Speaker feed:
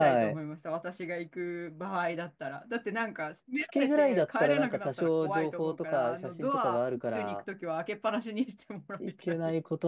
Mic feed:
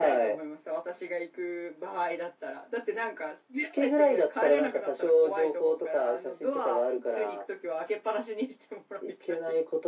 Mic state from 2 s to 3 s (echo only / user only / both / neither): echo only